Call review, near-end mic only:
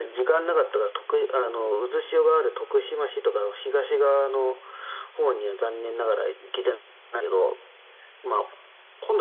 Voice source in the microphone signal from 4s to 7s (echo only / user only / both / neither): echo only